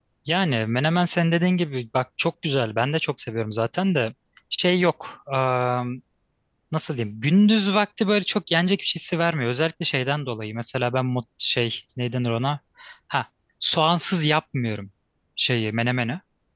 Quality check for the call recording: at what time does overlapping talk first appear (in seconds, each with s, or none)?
none